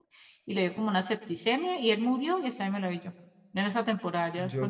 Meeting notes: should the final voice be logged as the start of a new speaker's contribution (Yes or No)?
Yes